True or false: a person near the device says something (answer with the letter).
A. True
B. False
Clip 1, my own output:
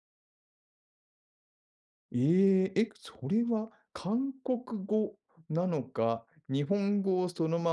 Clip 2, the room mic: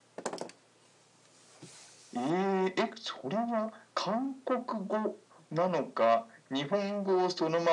B